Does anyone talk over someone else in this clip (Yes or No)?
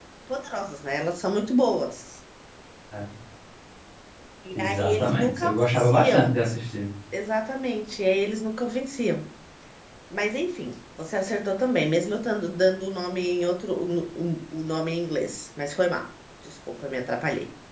Yes